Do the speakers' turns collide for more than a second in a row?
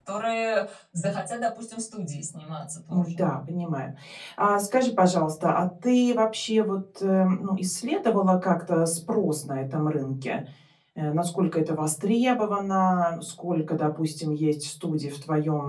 No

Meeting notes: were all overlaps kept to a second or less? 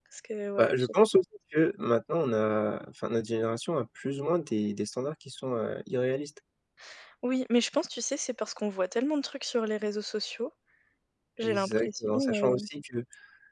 No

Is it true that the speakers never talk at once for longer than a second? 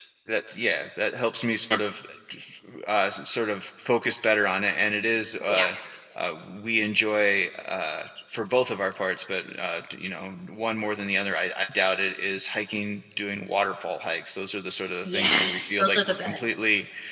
No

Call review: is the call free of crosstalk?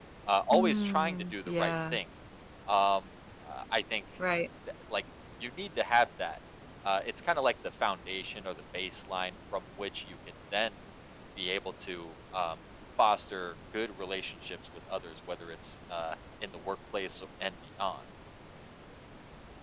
No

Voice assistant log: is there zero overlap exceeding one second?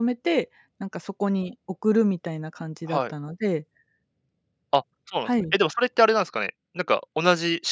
Yes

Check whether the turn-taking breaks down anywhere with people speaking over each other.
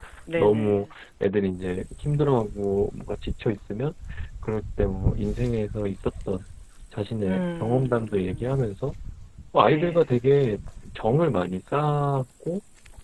Yes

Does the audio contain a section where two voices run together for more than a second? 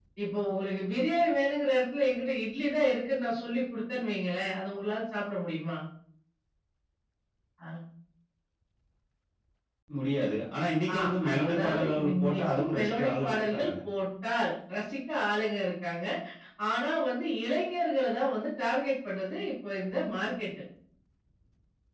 Yes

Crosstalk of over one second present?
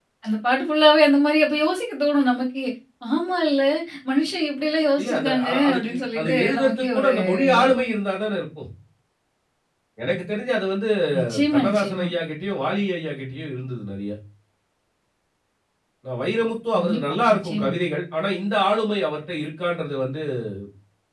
Yes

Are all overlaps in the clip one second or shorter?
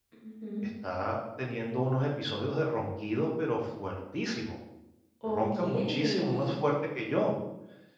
No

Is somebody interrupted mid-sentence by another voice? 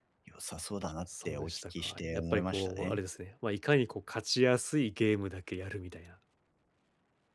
Yes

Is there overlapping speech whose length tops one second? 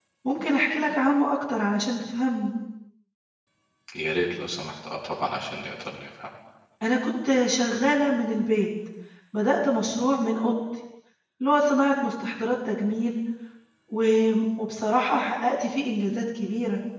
No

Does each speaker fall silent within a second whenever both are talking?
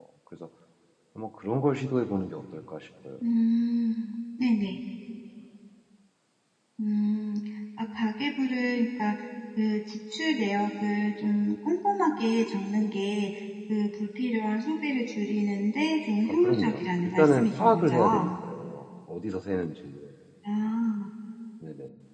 No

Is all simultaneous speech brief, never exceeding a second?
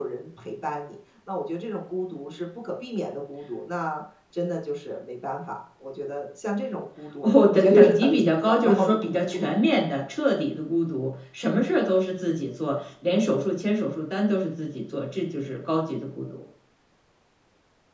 No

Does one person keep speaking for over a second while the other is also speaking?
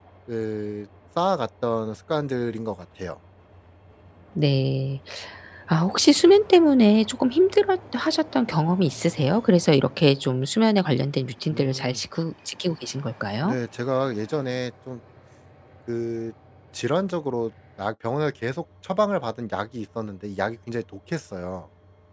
No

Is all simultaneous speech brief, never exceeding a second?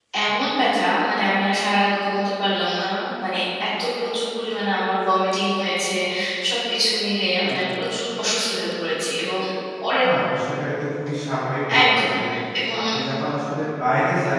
Yes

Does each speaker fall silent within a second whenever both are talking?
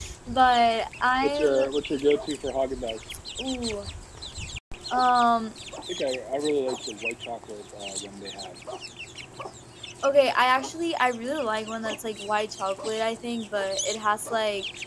Yes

